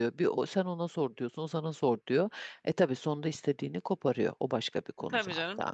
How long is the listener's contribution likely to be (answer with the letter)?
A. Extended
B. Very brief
A